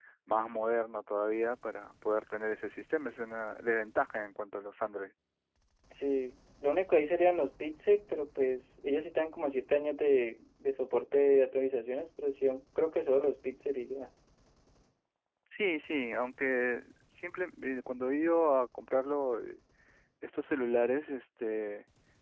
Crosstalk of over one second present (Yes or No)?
No